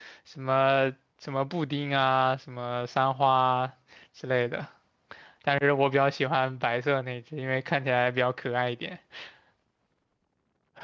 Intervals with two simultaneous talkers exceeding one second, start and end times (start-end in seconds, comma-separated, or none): none